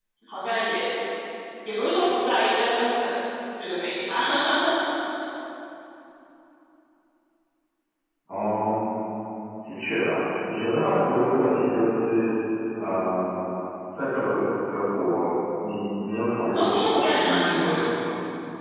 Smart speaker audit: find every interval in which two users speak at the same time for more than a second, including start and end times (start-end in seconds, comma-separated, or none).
16.5-17.8